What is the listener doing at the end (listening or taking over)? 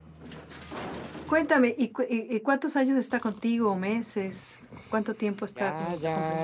taking over